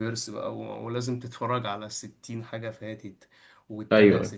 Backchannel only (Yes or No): Yes